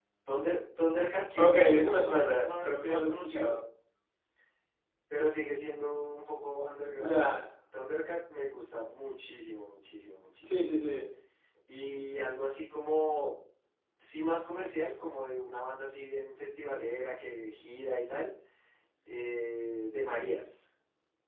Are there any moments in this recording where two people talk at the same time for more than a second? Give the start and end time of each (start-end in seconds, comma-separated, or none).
1.4-3.5